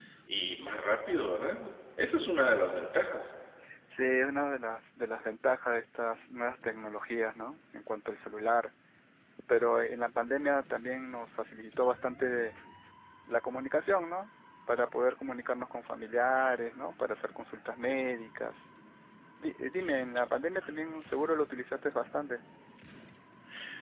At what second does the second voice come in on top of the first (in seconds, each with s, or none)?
none